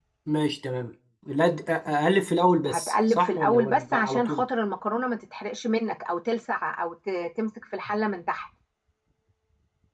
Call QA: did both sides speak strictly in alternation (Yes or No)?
No